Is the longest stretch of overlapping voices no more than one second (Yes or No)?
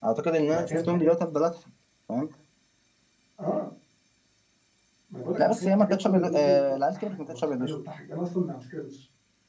No